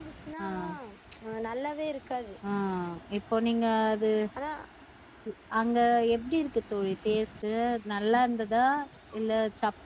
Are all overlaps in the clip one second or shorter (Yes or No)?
Yes